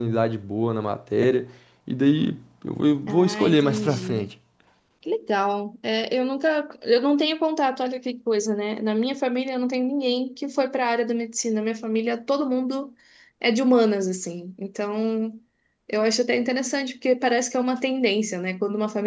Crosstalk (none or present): present